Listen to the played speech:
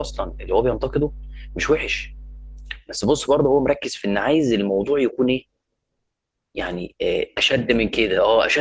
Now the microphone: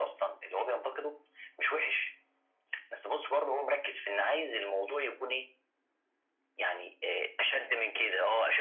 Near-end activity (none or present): none